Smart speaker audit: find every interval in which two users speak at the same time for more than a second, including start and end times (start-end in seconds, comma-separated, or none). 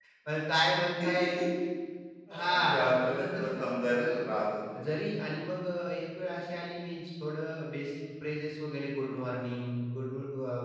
2.5-4.0